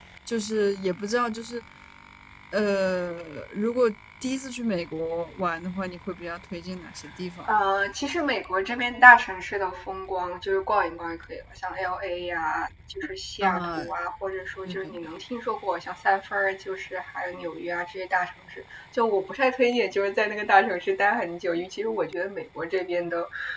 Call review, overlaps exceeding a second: none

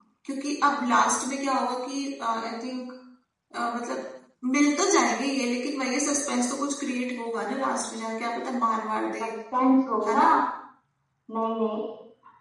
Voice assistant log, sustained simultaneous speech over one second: none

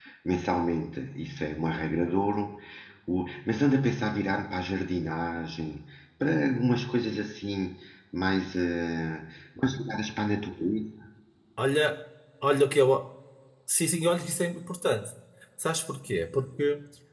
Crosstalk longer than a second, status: none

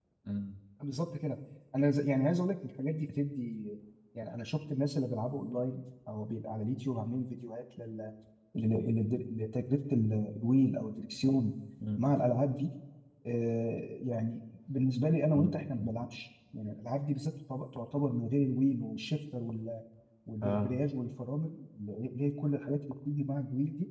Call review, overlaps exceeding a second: none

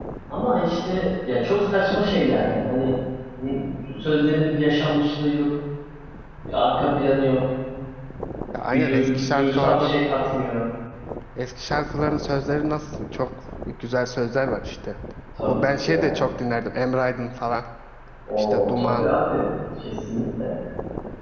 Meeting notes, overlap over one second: present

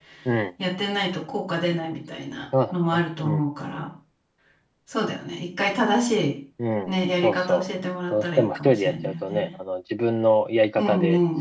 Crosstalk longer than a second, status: present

